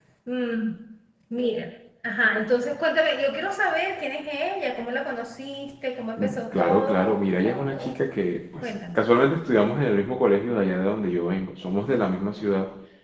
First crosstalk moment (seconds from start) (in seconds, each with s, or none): 6.2 s